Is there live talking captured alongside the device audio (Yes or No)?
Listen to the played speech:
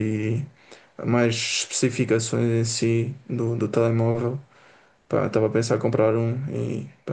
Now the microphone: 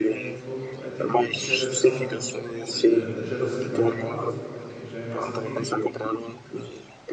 Yes